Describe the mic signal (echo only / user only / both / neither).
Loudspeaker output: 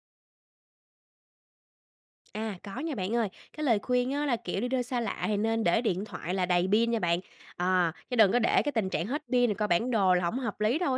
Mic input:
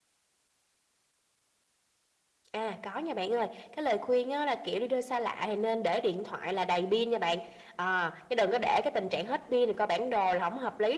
echo only